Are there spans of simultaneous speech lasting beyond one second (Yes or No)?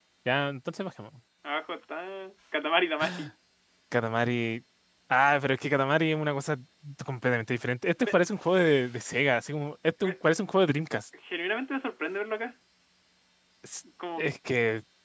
No